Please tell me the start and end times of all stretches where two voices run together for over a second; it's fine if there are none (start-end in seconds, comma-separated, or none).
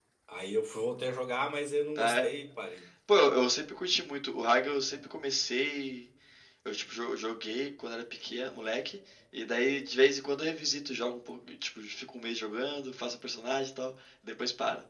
none